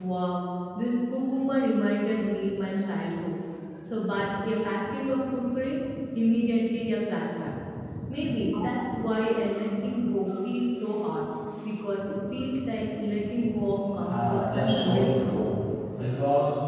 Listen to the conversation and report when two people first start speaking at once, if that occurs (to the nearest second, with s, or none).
14 s